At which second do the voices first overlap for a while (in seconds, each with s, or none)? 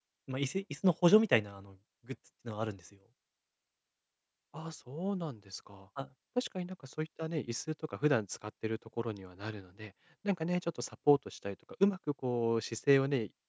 none